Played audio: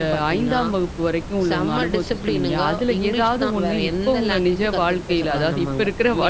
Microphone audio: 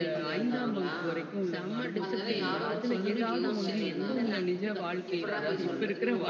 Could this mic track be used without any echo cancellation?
No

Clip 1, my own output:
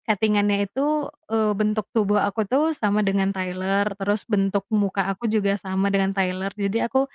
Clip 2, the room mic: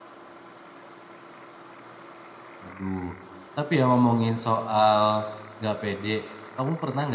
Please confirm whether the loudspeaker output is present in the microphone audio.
No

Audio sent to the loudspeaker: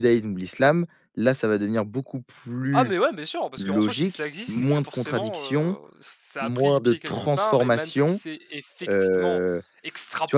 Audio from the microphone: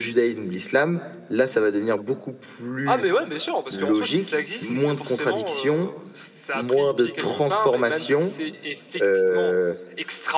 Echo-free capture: No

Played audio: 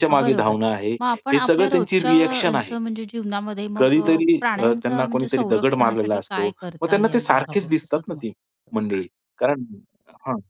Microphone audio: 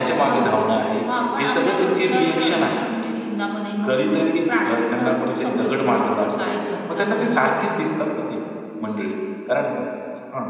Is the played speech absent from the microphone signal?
No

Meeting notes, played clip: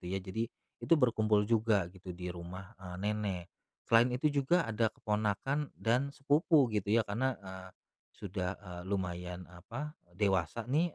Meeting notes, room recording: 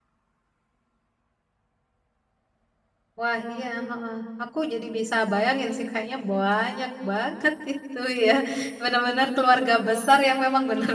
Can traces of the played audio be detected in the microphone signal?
No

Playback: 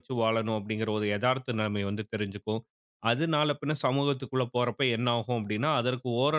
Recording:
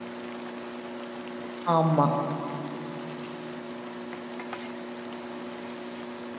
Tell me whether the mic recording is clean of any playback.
Yes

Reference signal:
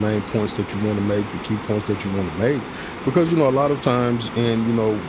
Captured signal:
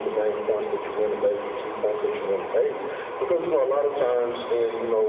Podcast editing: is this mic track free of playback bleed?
No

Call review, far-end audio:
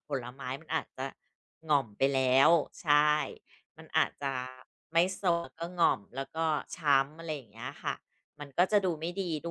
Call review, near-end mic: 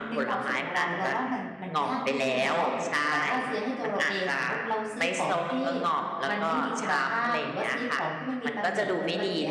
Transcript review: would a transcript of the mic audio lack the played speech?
No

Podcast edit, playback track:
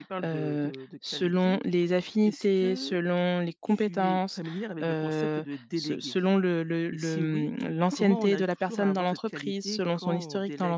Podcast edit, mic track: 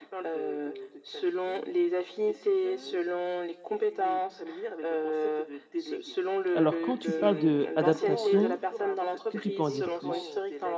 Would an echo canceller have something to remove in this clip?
Yes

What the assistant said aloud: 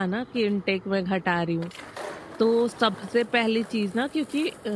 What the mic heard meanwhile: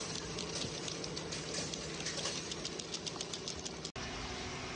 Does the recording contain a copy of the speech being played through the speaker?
No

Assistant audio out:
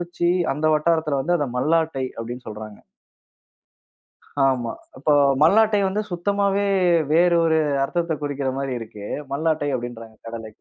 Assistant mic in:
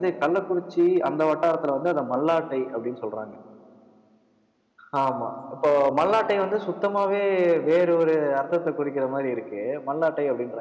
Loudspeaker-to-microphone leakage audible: Yes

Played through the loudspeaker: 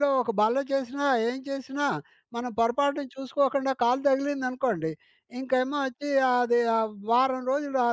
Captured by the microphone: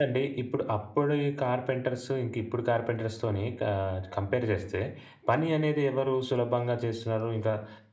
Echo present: No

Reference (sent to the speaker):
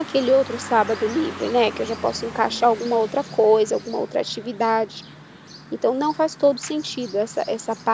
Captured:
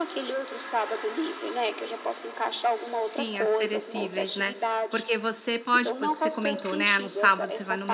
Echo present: Yes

